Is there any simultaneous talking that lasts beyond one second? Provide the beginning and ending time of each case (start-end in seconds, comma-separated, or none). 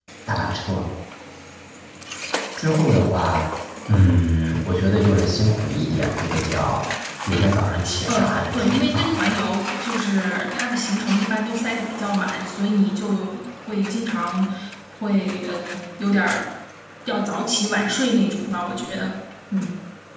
8.1-9.4